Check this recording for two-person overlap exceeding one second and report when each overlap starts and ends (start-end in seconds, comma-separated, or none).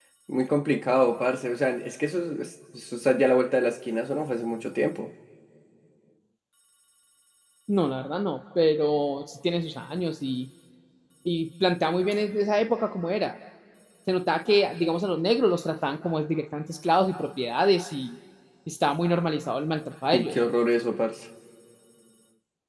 none